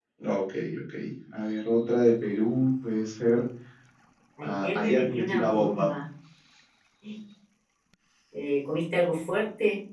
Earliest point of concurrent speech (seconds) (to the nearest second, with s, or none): 4 s